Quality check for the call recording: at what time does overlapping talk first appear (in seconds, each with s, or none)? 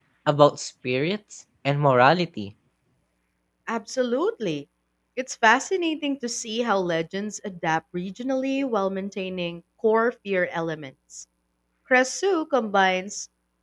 none